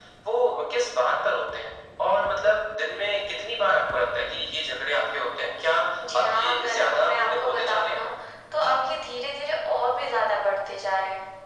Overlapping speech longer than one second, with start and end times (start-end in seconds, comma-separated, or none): 6.1-8.0